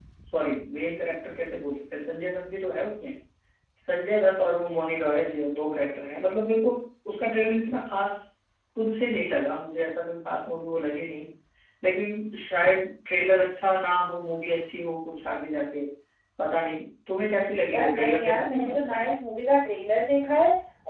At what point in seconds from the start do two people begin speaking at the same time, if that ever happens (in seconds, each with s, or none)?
17.7 s